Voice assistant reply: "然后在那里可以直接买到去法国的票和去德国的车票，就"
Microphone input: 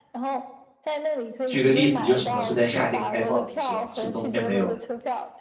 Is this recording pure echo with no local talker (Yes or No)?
No